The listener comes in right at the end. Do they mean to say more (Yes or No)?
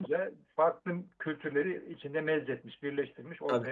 Yes